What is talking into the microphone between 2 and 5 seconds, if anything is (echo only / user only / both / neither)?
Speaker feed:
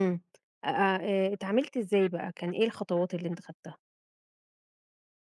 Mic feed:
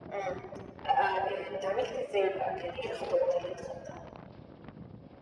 echo only